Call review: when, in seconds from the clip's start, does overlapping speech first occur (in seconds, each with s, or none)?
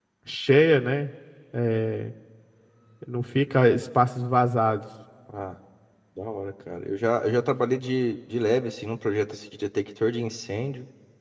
none